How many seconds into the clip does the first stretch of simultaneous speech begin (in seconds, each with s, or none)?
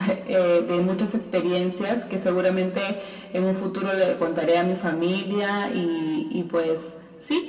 none